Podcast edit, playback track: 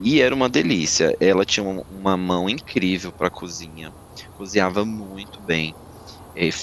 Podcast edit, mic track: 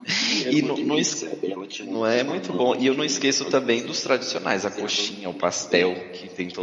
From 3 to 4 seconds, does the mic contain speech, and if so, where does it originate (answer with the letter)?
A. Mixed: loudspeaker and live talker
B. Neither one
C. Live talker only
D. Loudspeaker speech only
A